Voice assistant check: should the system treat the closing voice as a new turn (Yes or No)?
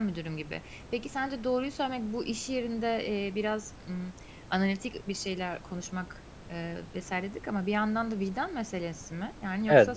Yes